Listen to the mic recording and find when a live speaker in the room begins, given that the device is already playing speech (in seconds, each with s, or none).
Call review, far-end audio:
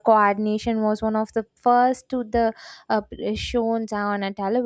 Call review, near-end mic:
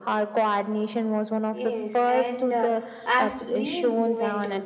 1.6 s